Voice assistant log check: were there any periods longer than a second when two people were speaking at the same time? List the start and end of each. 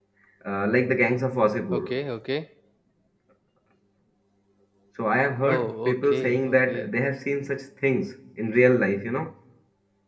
5.5-6.9

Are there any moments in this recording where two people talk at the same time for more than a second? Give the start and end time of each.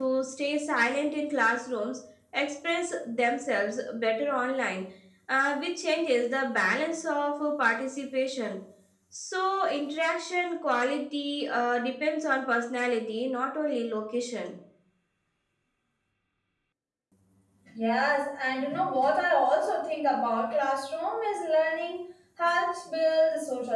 none

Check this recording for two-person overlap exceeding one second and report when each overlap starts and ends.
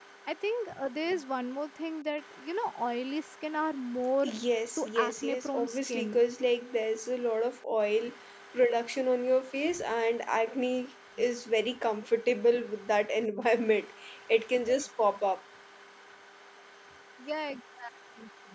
4.8-6.2

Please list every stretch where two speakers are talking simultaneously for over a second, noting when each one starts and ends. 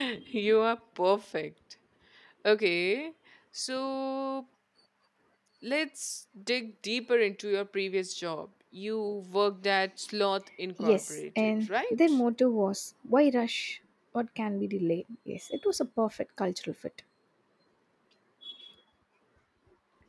10.8-12.2

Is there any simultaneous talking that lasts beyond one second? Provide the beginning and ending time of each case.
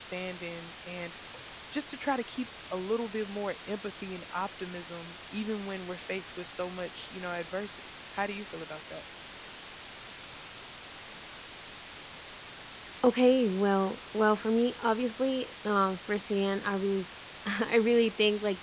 none

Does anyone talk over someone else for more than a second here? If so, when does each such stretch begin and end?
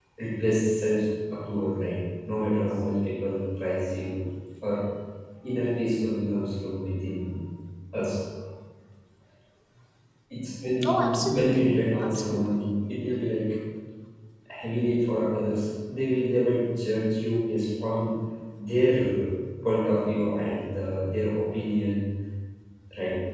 10.8-12.7

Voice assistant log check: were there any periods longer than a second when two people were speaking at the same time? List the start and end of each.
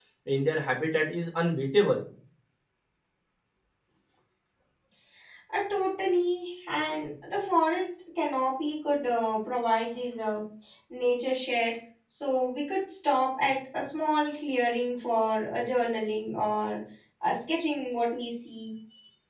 none

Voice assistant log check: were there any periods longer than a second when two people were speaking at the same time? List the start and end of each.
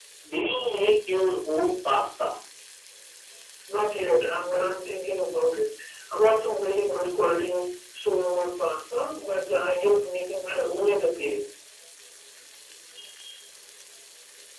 none

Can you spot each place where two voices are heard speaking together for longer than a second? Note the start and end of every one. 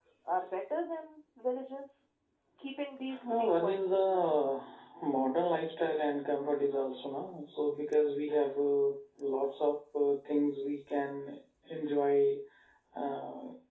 3.3-4.5

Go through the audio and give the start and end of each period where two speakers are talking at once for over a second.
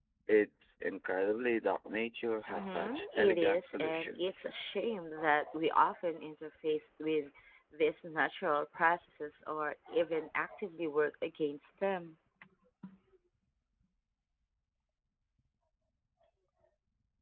2.5-4.2

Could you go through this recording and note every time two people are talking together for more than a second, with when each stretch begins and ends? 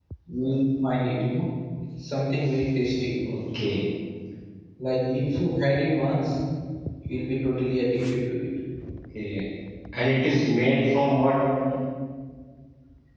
none

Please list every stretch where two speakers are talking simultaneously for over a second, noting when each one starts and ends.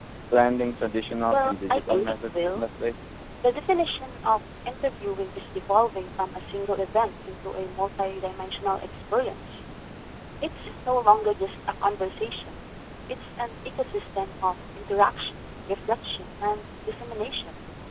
1.3-2.6

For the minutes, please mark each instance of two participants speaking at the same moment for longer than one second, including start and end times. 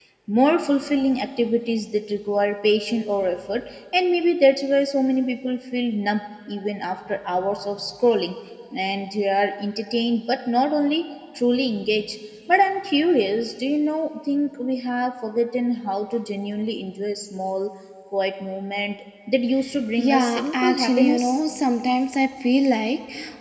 20.0-21.4

